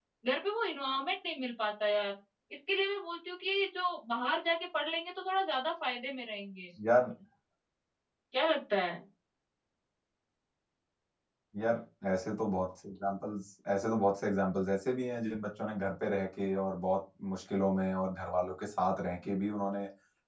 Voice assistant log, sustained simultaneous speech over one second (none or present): none